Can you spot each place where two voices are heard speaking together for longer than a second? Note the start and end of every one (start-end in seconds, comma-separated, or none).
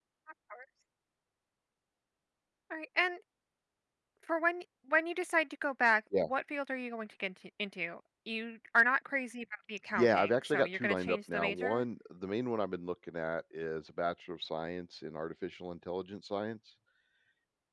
9.9-11.8